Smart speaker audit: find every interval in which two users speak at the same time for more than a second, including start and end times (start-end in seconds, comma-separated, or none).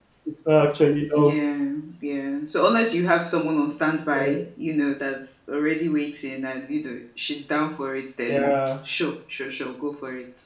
none